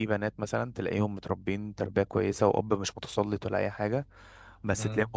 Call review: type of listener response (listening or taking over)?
listening